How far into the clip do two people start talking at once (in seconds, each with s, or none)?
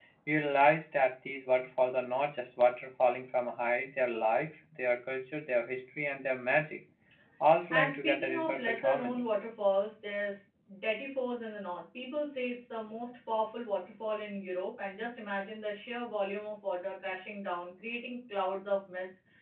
7.7 s